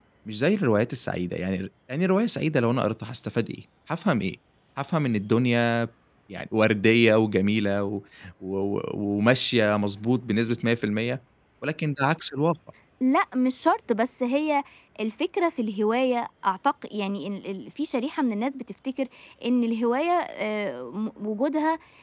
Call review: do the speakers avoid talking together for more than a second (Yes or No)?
Yes